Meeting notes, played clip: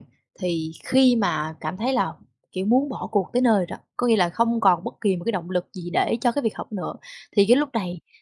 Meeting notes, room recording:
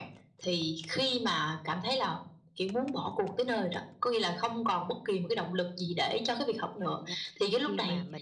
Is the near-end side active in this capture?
Yes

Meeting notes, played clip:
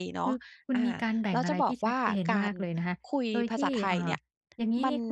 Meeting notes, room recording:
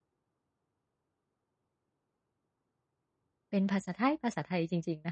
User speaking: Yes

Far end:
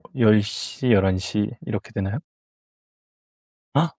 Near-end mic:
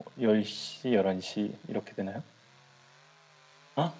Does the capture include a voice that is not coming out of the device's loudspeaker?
No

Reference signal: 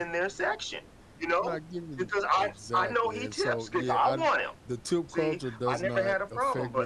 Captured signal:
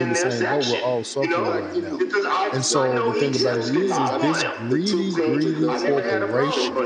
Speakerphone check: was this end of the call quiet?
No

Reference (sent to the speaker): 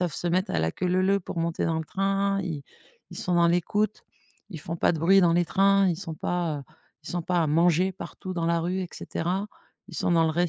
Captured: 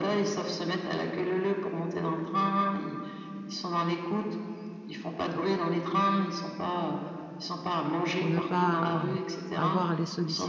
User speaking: Yes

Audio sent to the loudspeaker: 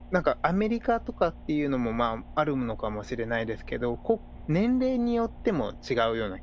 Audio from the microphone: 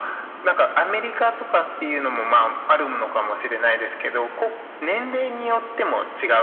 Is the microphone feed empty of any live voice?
Yes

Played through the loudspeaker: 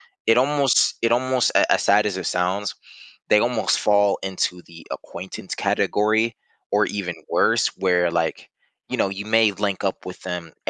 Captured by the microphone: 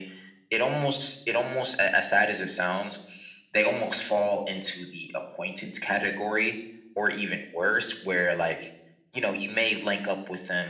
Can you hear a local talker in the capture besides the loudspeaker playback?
No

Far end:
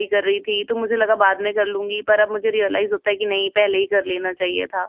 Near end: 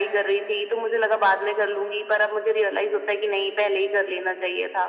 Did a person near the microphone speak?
No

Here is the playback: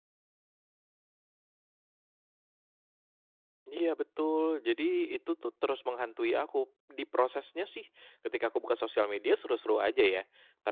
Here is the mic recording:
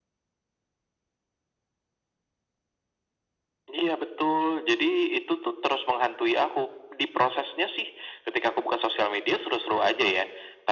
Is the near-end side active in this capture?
No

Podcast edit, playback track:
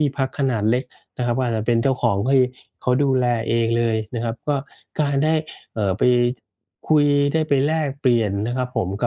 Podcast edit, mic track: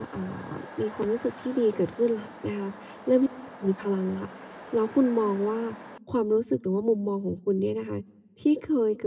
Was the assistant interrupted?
Yes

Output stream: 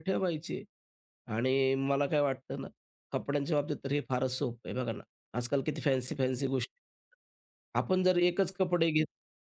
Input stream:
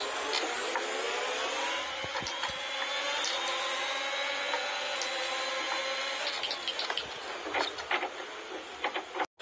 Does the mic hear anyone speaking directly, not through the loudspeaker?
No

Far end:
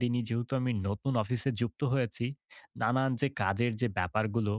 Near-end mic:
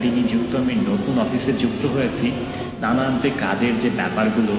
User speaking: No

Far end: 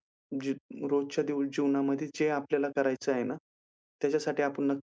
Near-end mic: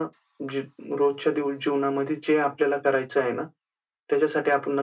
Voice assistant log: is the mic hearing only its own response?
Yes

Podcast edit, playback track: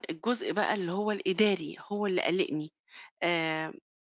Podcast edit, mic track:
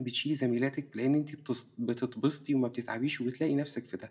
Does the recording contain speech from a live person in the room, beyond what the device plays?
Yes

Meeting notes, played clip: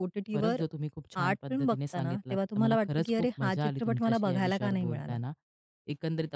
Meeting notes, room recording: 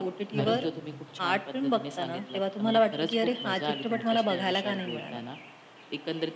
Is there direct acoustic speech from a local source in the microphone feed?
Yes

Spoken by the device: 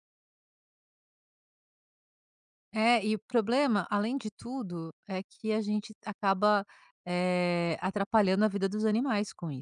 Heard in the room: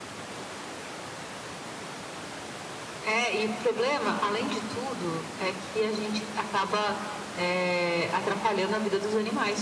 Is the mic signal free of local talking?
Yes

